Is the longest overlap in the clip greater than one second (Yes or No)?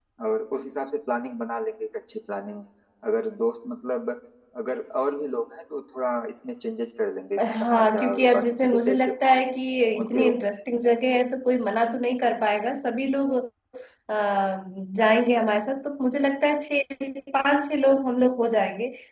Yes